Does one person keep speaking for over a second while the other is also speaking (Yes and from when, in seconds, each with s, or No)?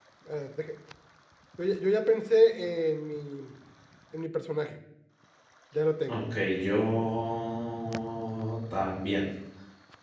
No